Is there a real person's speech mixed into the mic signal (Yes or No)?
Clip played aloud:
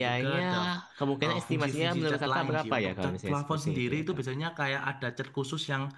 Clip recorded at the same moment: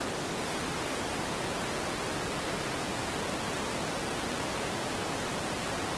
No